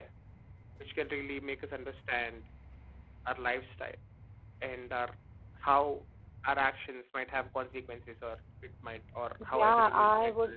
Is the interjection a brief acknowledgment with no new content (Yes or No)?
No